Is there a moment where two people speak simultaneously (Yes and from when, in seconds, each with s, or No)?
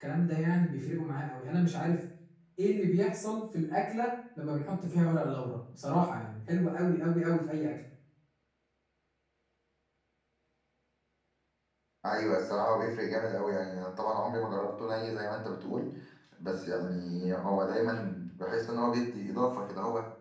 No